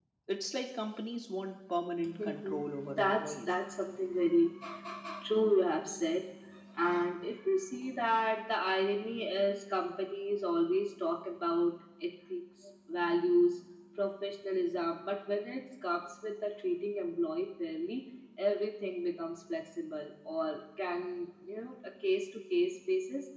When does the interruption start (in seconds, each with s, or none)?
2.0 s